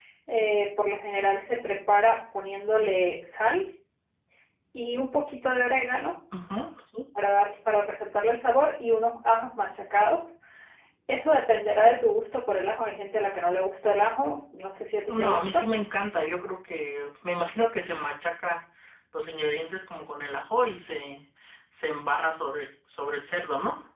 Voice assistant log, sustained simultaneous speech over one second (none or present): none